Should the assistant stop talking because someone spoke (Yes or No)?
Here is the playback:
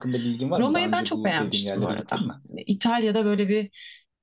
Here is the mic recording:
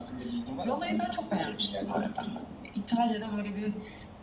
No